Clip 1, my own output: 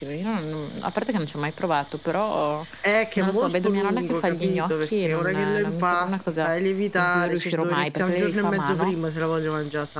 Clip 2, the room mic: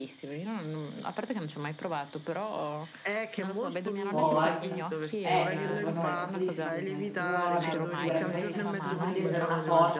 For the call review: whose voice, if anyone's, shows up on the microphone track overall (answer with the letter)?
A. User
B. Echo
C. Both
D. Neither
C